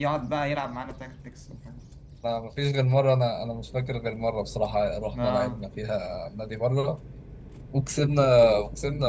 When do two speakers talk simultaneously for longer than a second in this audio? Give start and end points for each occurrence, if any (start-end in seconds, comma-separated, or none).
none